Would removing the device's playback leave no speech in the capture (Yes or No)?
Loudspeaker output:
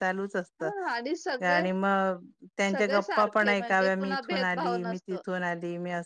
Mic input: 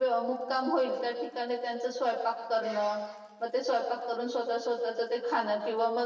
No